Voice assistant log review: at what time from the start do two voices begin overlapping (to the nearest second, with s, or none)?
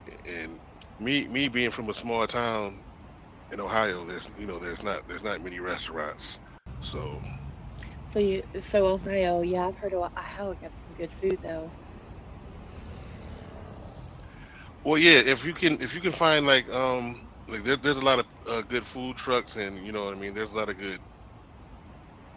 none